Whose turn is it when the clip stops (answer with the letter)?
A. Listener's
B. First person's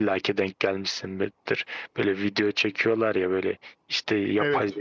B